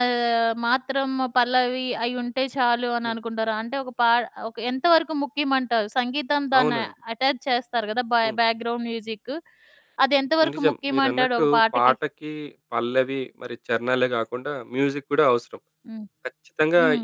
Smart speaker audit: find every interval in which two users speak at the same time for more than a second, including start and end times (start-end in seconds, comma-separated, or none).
10.5-11.9